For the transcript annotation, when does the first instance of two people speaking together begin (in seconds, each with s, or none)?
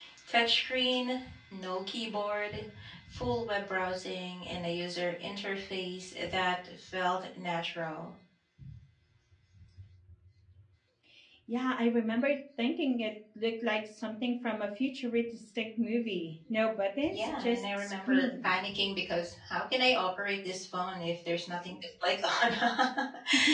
17.0 s